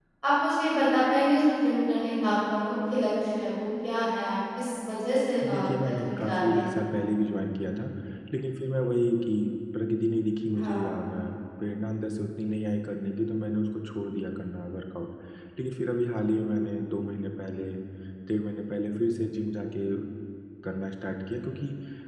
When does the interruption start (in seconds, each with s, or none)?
5.5 s